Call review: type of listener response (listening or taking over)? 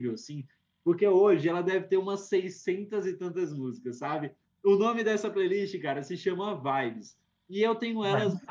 listening